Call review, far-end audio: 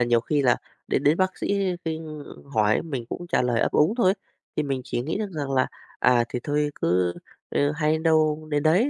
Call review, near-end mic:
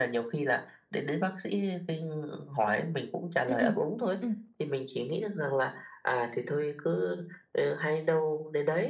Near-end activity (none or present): present